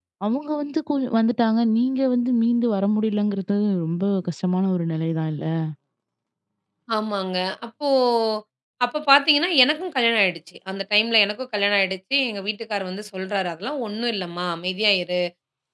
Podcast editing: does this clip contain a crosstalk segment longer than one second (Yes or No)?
No